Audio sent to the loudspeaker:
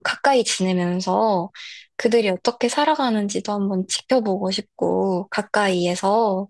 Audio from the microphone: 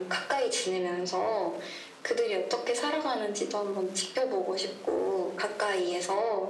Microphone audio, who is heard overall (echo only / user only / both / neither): echo only